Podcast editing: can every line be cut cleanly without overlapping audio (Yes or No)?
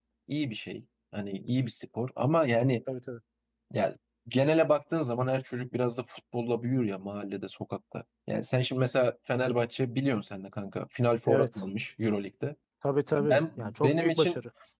No